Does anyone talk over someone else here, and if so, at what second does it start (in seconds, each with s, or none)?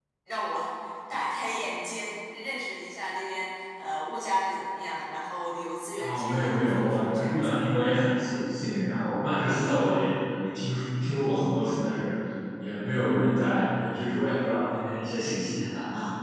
6.0 s